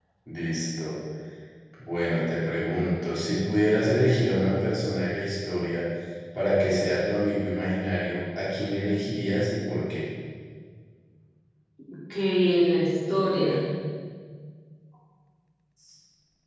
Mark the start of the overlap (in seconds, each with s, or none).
none